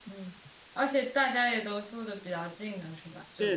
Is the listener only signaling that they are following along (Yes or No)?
No